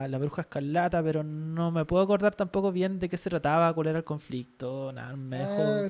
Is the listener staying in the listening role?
No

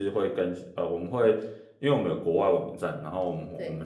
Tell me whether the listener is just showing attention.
Yes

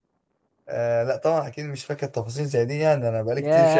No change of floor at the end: No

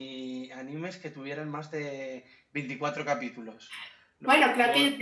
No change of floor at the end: No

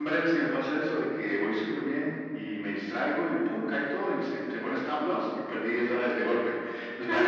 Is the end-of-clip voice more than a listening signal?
No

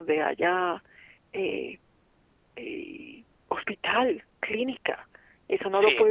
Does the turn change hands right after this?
Yes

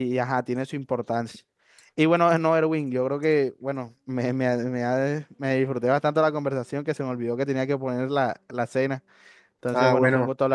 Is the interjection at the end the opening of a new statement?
Yes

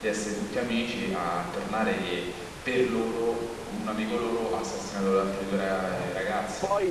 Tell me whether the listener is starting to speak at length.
Yes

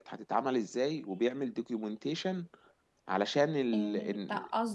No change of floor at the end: No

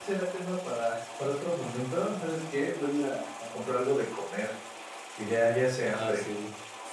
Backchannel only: No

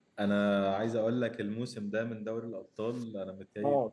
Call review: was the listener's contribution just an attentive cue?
Yes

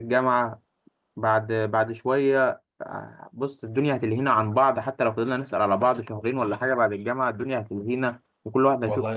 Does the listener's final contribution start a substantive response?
Yes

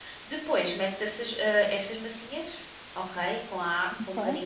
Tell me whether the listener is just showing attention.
Yes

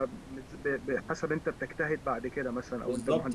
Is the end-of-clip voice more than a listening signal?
Yes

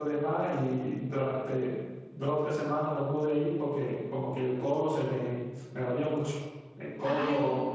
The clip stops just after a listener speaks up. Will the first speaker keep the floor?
Yes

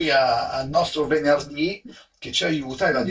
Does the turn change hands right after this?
No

